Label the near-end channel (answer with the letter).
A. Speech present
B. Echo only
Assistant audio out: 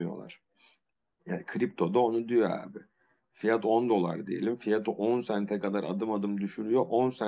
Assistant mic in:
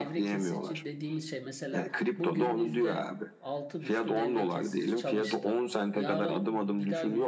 A